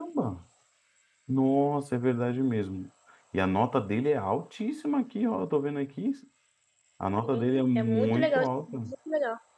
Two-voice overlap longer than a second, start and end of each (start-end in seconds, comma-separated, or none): 7.2-8.8